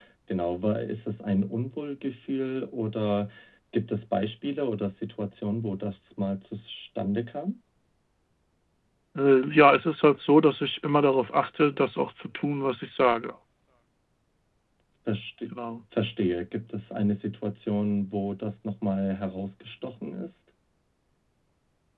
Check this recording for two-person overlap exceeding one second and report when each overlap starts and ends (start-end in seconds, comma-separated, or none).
none